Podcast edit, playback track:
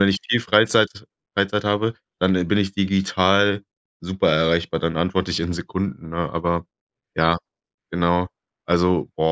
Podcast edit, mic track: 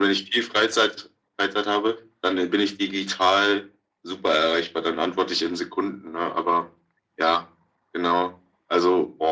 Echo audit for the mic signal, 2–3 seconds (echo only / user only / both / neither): echo only